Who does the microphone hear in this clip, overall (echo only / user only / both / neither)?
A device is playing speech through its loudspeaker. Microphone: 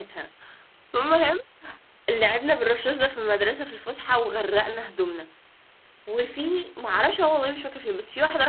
user only